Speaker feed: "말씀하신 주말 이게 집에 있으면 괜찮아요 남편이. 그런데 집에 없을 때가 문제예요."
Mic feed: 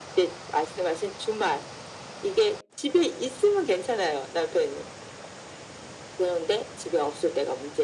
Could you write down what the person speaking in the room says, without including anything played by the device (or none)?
none